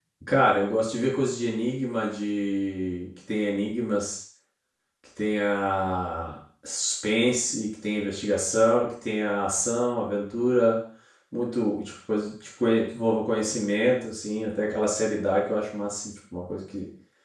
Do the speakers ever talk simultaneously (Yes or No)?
No